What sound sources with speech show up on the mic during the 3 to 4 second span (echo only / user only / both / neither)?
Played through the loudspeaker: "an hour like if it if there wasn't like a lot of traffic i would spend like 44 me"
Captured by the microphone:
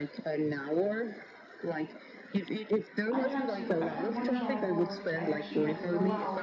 both